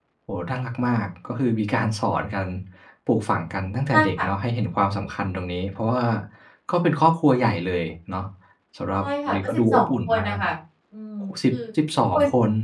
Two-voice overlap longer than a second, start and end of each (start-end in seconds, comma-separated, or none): 9.0-10.4